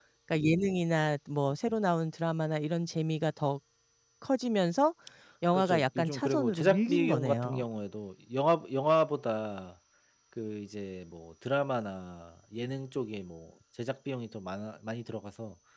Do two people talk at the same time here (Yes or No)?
Yes